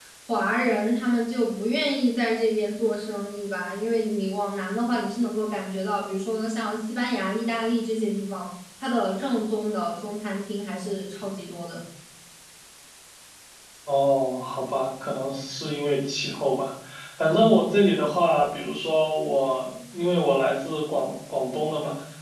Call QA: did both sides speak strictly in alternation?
Yes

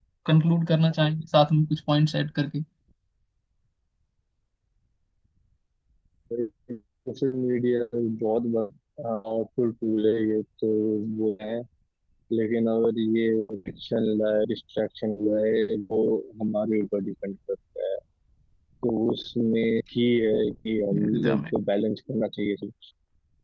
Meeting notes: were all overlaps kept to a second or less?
Yes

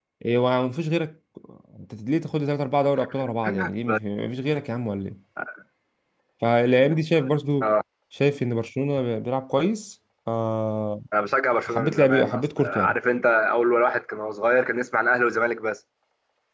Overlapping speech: Yes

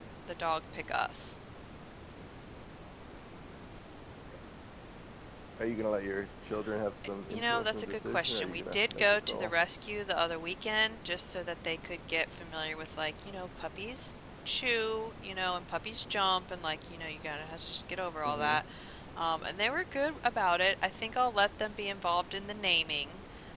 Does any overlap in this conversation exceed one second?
Yes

